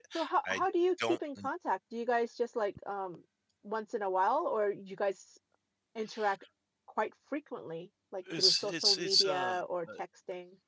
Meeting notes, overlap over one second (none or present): present